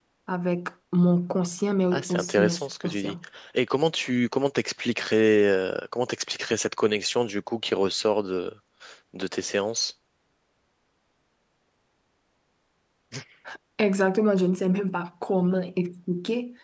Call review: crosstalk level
present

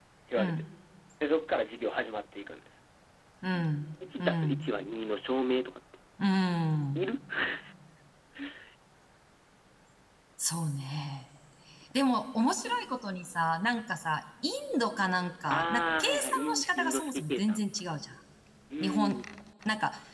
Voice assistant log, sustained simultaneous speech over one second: present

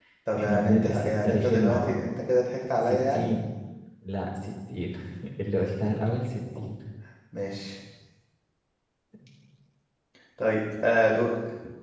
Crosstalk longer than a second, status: present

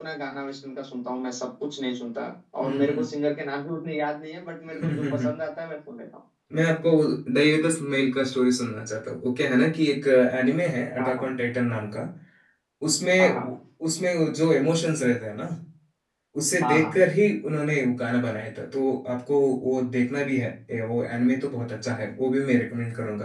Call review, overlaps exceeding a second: none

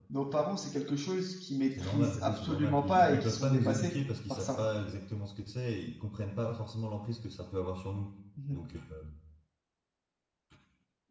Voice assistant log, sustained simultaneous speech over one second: present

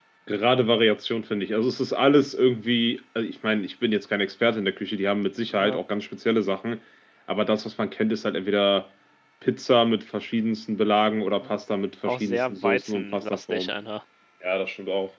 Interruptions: present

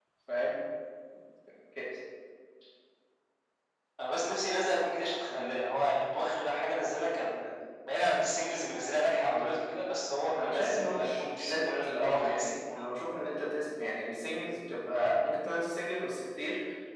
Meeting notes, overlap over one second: present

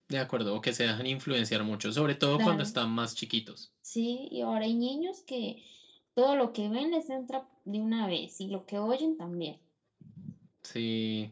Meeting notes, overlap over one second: none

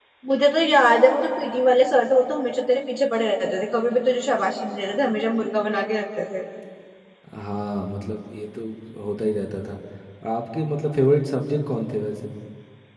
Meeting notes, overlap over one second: none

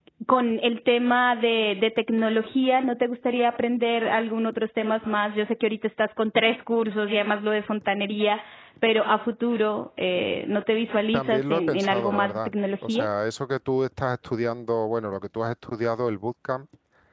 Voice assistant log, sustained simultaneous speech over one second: present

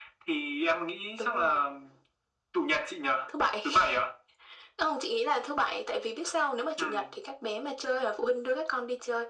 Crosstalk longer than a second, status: none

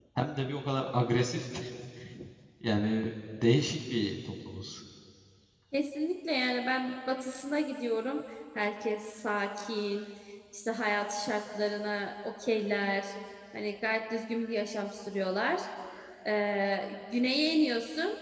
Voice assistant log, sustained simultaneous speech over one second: none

